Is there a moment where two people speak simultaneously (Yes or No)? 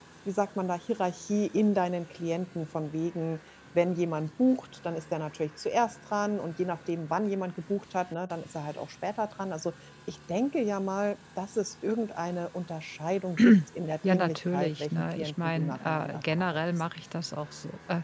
Yes